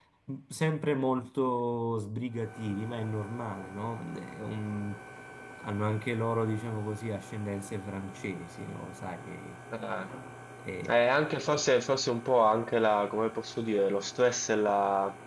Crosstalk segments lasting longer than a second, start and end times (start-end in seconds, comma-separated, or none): none